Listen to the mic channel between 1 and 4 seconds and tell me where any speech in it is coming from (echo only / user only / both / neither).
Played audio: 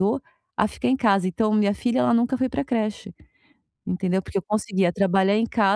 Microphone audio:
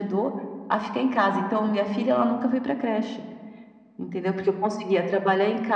echo only